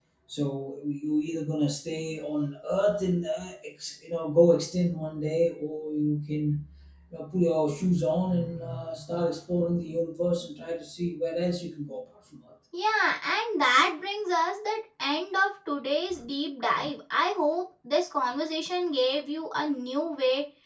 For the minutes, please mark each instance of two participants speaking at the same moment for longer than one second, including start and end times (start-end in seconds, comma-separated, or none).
none